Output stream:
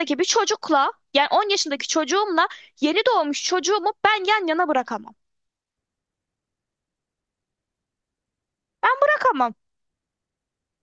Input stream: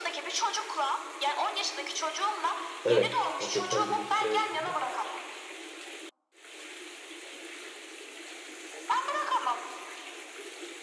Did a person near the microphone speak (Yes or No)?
Yes